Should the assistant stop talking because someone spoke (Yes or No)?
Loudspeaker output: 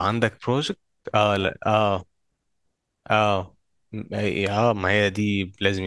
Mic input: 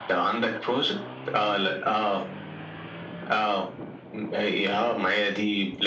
No